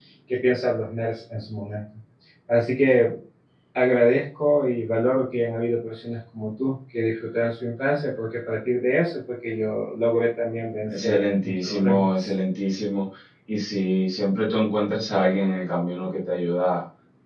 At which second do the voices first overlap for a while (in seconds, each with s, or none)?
10.9 s